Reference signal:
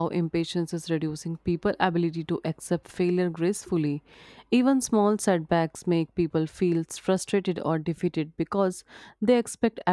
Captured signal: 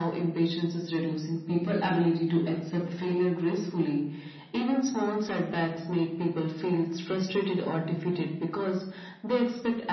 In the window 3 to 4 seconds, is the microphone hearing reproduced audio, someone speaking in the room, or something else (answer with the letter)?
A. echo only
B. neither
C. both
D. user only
A